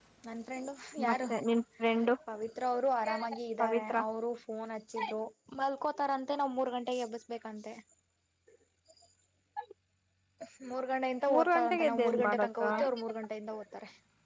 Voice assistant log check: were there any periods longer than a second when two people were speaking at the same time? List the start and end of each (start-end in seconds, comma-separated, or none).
11.3-12.6